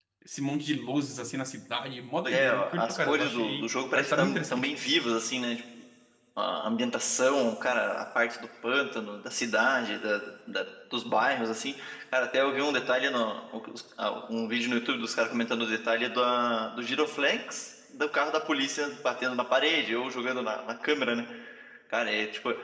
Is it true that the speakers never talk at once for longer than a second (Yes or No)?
No